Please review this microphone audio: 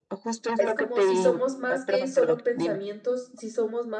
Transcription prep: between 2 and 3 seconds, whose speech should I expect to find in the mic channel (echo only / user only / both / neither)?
both